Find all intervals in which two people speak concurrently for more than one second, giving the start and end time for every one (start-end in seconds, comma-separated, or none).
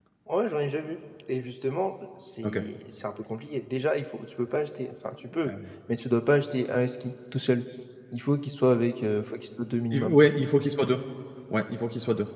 none